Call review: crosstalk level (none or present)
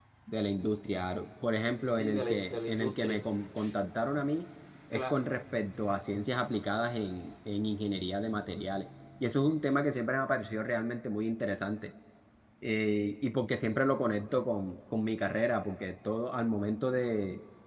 present